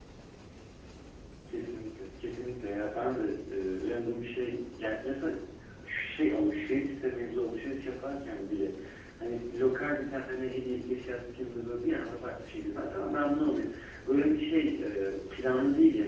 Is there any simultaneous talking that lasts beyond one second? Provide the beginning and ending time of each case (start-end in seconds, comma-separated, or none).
none